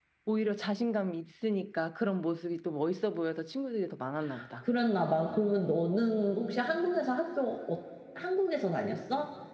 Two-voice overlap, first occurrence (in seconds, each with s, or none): none